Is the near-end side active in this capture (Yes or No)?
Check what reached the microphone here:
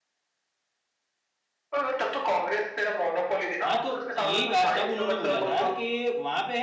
Yes